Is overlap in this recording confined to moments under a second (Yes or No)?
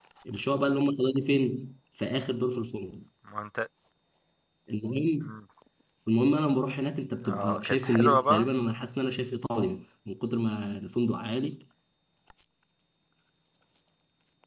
No